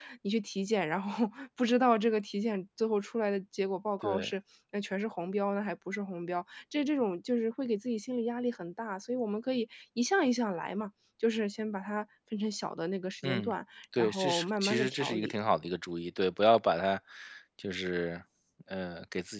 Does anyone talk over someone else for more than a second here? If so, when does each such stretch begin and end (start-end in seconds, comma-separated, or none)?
14.0-15.4